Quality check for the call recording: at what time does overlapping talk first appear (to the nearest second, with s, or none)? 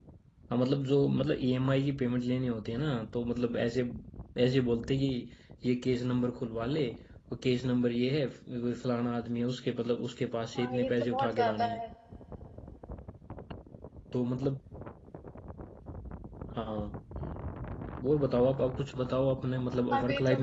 11 s